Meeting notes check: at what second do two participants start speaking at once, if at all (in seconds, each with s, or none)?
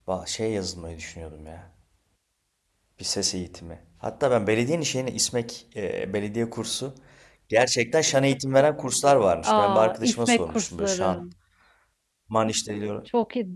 9.4 s